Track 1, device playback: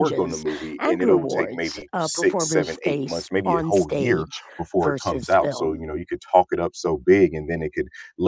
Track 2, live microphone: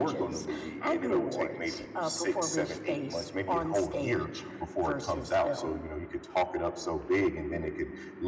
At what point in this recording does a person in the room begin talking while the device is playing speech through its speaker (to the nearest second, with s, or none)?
none